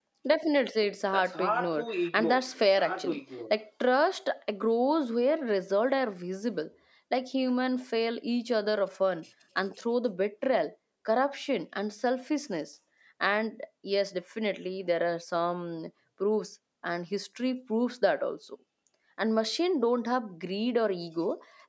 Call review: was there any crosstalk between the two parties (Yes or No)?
Yes